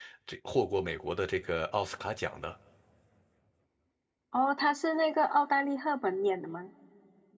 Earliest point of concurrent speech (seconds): none

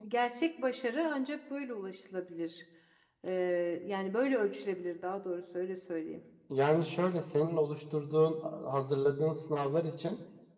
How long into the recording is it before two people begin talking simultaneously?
none

